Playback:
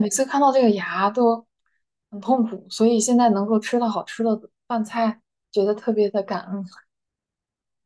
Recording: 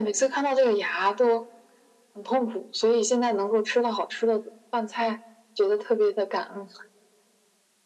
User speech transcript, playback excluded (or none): none